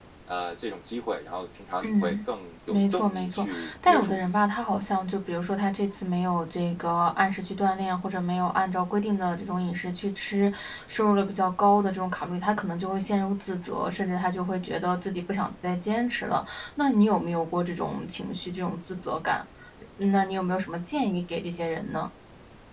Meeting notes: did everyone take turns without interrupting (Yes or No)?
No